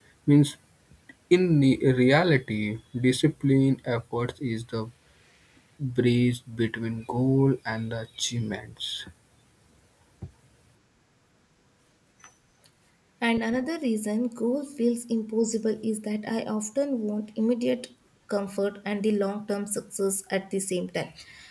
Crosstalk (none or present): none